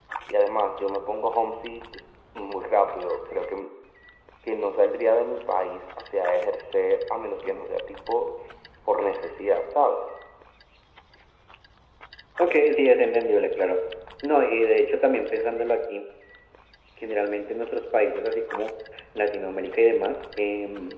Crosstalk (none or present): none